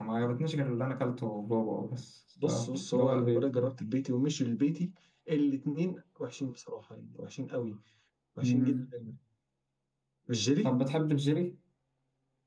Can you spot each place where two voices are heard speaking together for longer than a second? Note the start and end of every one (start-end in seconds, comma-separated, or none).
2.4-3.7